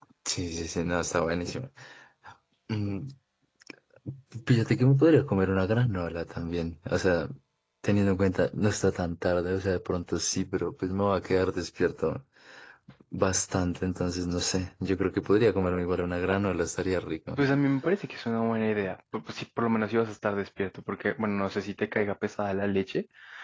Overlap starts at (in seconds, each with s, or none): none